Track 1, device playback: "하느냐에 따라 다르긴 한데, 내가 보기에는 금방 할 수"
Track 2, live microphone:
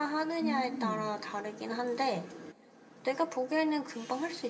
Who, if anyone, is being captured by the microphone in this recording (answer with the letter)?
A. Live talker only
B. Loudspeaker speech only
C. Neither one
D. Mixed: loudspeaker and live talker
D